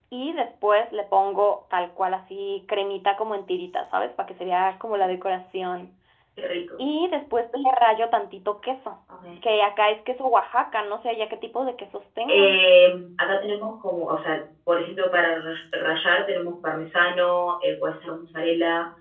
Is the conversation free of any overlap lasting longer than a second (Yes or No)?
Yes